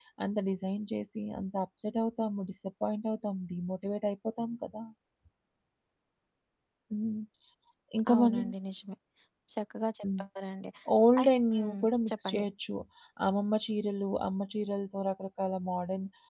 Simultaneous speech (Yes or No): Yes